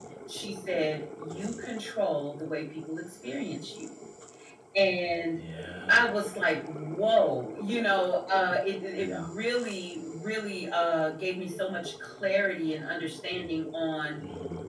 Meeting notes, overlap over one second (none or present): none